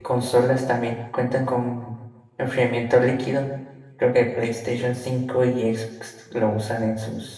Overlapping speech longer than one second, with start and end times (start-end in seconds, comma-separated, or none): none